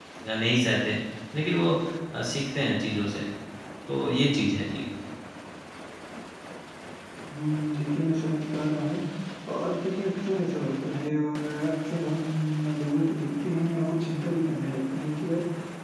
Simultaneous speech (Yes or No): No